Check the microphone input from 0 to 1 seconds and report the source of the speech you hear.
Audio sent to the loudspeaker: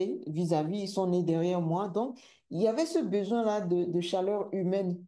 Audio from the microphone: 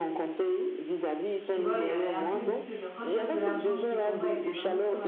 echo only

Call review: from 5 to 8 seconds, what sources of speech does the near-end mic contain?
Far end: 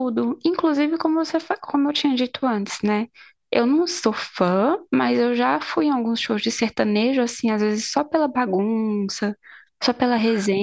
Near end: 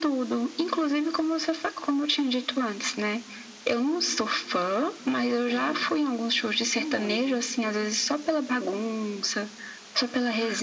both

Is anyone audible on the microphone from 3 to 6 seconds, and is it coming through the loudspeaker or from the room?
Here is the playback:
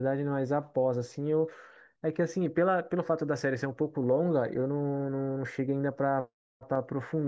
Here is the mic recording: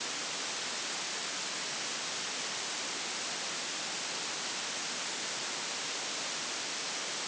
neither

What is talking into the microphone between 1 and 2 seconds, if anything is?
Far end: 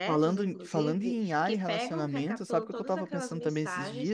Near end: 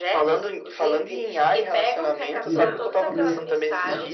echo only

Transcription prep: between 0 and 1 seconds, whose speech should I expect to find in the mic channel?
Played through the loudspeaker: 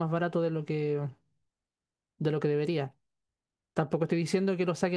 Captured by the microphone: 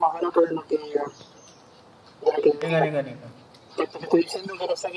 echo only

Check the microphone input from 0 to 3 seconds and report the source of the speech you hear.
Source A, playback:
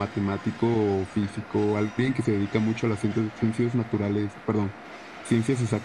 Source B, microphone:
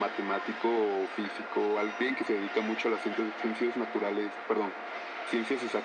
echo only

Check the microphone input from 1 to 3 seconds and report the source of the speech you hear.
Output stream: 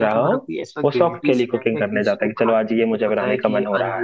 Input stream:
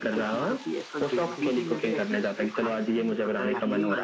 both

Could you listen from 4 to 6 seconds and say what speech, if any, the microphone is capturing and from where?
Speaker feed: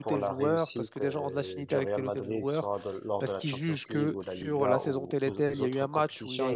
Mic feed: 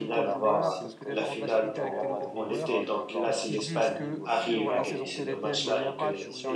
both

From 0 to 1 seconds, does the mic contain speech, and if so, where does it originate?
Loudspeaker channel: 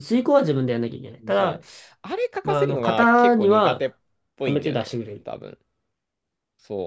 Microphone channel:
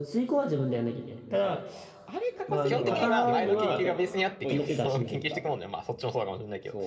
echo only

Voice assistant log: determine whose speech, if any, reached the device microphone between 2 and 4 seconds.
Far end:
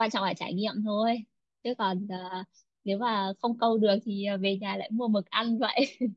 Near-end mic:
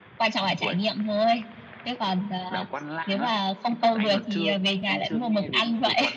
both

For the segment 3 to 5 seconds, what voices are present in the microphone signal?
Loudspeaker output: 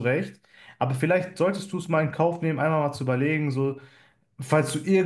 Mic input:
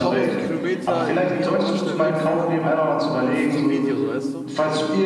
both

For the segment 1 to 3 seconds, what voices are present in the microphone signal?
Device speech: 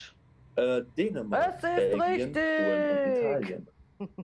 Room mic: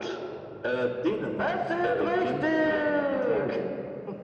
echo only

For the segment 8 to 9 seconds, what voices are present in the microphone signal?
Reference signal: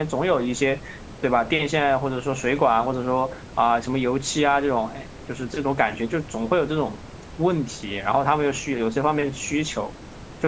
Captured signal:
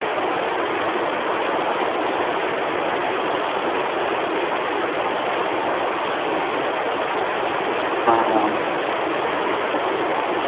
user only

